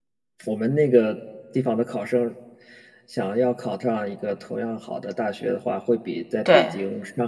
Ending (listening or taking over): listening